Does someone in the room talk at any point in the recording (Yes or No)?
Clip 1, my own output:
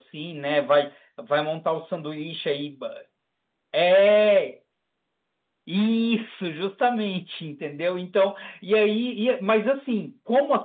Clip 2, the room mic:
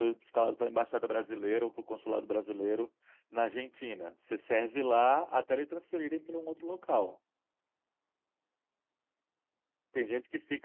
Yes